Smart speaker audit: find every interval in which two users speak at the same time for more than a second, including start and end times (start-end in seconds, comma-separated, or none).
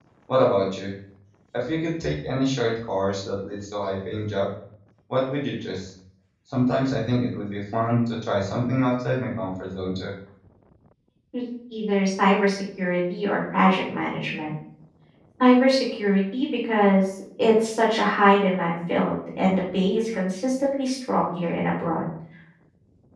none